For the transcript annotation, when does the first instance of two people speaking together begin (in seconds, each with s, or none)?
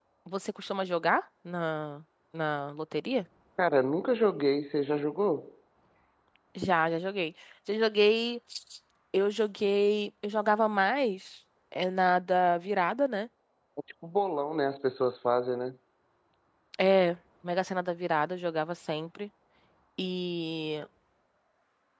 none